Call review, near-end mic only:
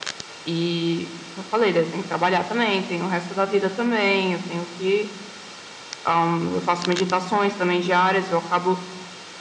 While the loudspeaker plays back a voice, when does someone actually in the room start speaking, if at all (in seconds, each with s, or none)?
none